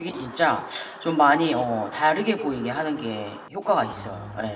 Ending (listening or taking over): taking over